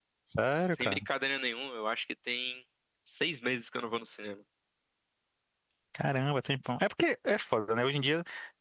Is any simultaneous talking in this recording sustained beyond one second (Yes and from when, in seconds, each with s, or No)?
No